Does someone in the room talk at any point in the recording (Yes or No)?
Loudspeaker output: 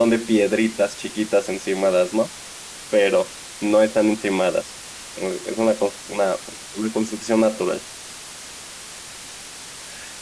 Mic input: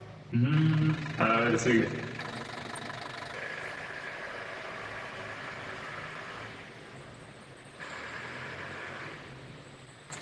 Yes